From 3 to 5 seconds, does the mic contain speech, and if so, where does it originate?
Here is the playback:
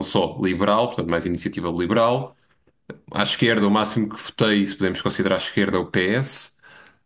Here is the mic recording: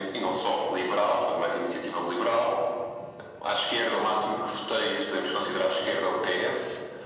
echo only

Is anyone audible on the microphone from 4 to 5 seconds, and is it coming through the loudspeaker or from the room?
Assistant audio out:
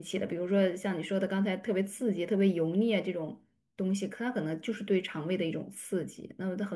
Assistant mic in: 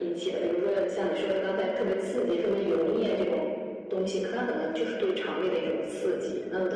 echo only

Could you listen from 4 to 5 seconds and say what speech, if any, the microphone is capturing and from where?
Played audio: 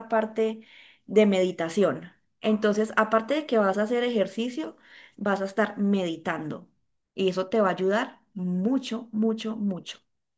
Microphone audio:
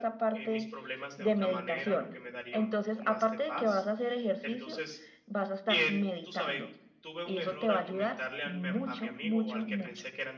both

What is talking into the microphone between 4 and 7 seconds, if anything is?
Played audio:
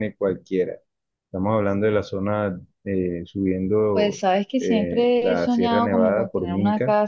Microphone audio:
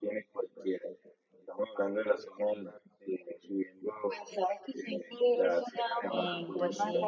both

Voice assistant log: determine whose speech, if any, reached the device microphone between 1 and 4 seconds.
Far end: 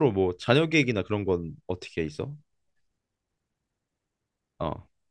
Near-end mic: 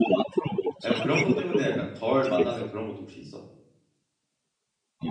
both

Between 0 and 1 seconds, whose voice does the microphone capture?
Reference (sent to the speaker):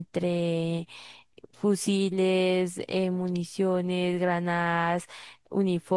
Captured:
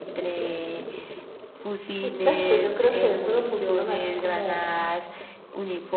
echo only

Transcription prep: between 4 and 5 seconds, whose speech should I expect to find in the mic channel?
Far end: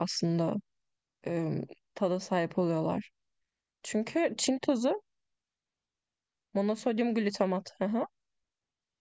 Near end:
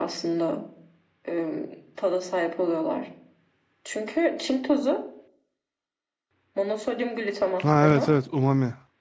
echo only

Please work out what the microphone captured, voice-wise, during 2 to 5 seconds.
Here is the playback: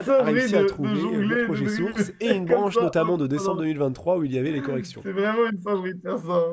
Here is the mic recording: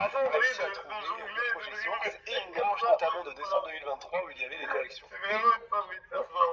echo only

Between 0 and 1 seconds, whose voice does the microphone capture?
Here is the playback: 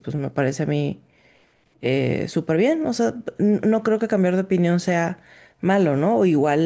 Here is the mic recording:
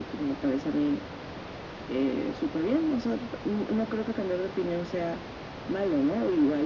echo only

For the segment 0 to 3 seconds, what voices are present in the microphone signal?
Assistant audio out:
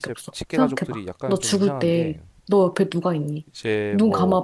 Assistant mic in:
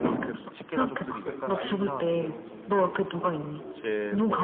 both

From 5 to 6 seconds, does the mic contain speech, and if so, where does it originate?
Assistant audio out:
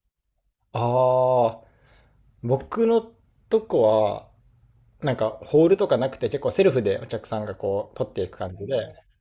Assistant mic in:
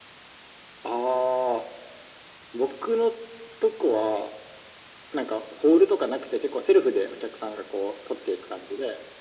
echo only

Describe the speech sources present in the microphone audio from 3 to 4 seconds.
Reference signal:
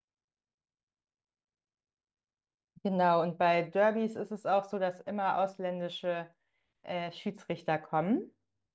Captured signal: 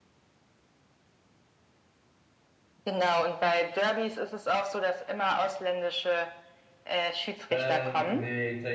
echo only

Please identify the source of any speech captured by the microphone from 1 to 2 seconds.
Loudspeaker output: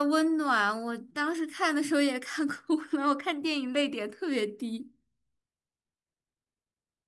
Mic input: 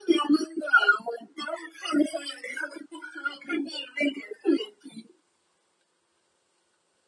echo only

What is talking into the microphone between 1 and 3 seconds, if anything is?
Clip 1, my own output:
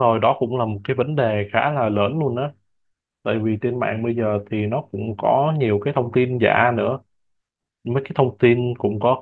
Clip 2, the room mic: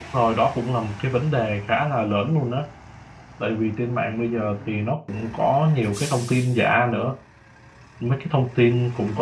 echo only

